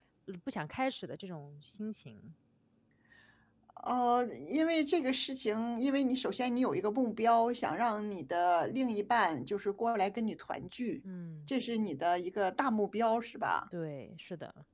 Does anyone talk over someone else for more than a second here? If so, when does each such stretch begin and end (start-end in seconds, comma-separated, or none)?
none